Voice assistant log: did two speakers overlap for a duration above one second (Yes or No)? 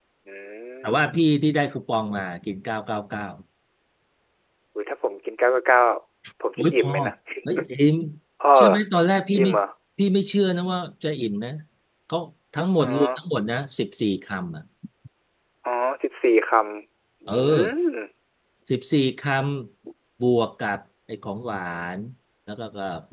No